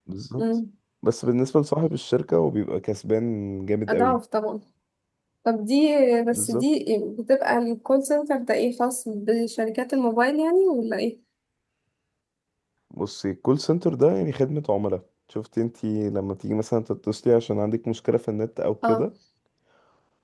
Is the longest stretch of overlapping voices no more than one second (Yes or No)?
Yes